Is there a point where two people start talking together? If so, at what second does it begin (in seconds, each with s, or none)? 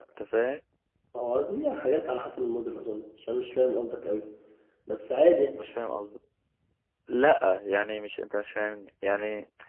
none